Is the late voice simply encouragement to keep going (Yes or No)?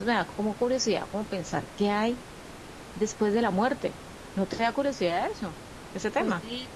No